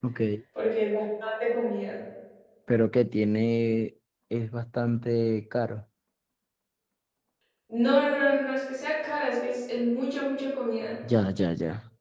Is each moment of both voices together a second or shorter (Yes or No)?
Yes